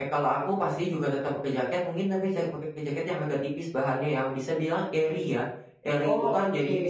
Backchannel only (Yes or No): Yes